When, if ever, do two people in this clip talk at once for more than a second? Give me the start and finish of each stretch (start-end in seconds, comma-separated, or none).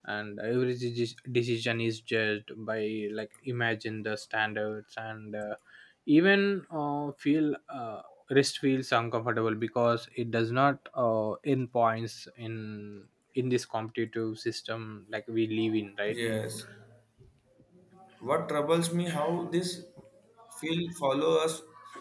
none